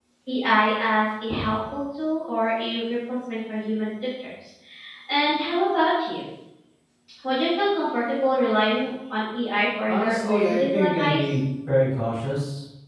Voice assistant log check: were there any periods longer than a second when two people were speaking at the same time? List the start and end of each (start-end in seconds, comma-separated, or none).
9.9-11.2